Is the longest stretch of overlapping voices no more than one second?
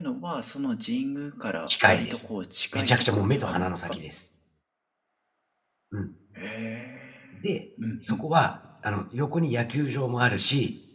No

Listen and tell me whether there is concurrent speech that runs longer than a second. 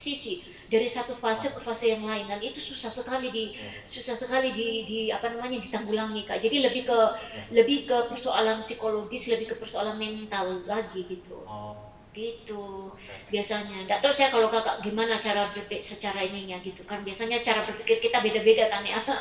No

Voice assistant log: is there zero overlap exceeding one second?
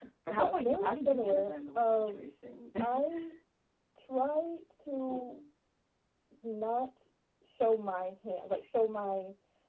No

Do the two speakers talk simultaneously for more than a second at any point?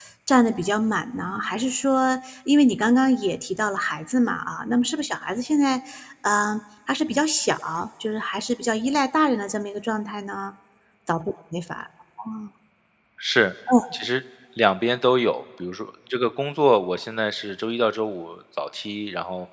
No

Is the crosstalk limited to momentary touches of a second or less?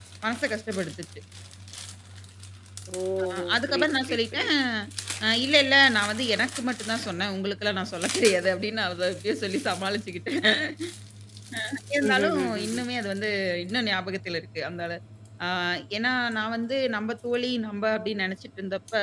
No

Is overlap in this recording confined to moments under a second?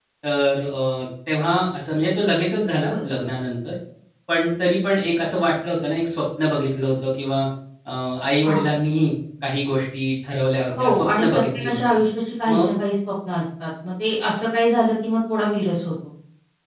No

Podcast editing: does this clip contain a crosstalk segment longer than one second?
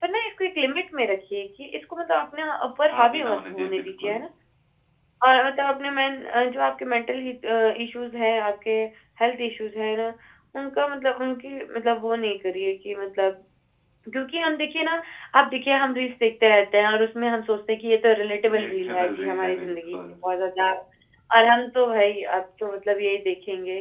Yes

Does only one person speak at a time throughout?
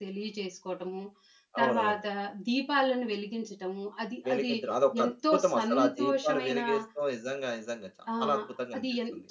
No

